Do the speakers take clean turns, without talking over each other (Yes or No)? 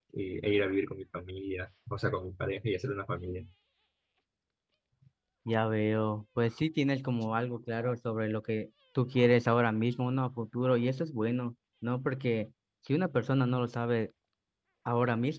Yes